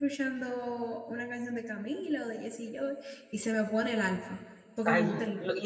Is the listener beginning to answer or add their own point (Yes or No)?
Yes